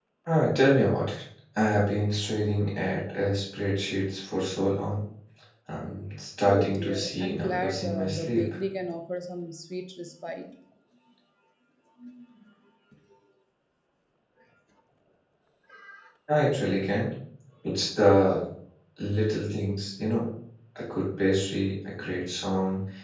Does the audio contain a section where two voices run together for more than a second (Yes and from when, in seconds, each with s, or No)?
Yes, from 6.5 s